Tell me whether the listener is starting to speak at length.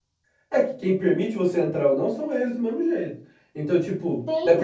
Yes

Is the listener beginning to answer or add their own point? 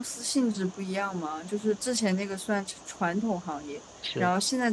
No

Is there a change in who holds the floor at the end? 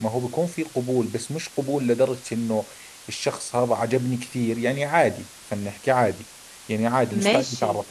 No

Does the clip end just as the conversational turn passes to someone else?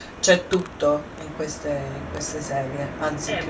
Yes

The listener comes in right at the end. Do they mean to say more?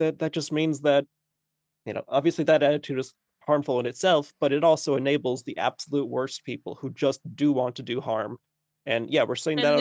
No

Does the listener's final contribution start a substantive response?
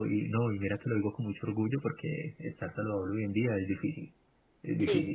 No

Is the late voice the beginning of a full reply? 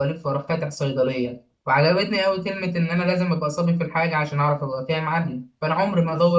No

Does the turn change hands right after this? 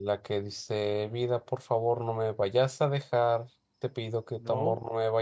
No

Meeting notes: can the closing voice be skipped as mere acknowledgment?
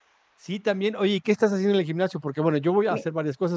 Yes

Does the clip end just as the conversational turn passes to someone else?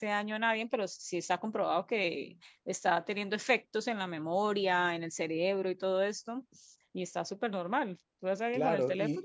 Yes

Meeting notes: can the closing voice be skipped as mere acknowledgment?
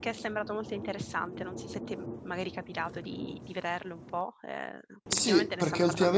No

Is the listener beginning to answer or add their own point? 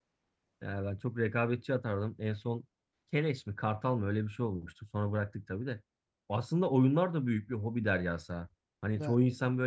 No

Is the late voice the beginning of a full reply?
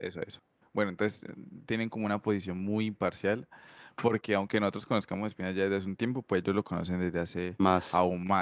No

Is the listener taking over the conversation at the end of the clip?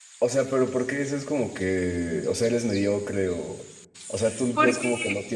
No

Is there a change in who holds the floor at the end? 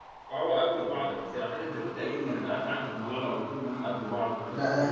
Yes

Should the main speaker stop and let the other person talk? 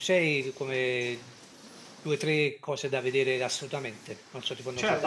Yes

